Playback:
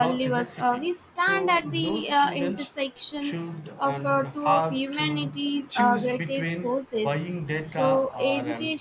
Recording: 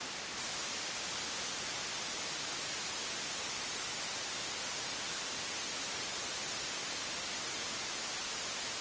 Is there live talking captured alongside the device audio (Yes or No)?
No